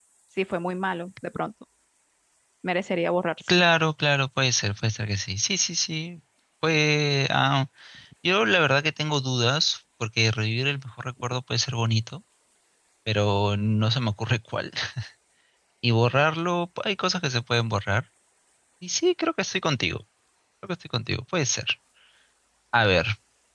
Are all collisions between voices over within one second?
Yes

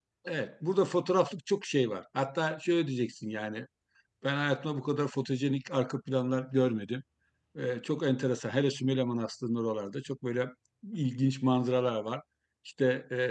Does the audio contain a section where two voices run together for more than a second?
No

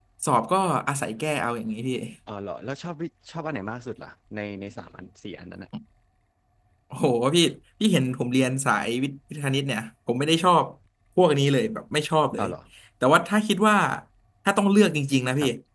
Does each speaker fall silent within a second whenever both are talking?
Yes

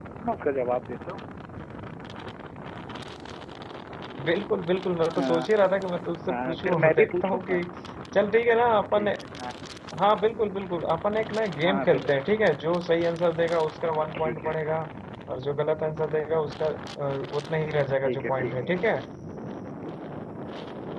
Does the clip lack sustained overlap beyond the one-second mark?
No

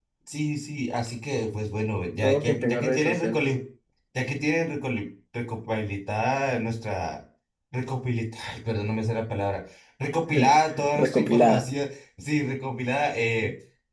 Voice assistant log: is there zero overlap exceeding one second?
No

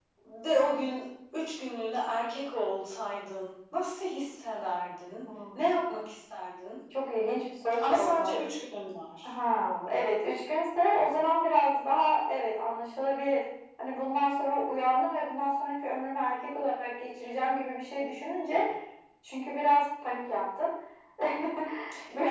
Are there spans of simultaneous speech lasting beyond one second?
No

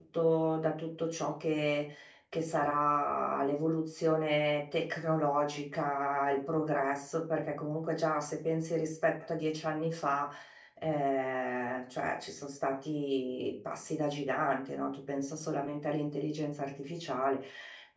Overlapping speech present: No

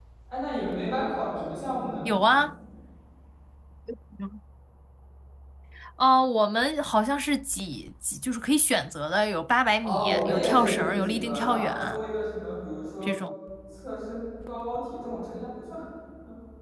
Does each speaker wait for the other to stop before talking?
No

